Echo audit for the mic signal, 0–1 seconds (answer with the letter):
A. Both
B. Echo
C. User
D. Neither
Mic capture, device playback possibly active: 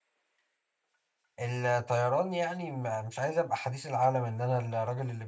D